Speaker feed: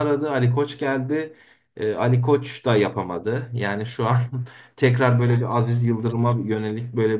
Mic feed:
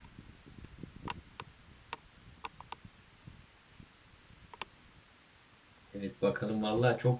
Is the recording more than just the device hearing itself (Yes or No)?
Yes